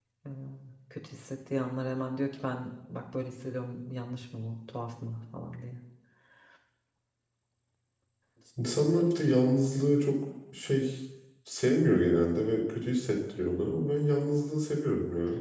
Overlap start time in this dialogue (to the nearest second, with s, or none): none